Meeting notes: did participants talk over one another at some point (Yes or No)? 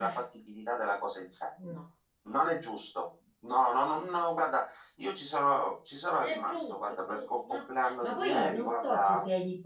Yes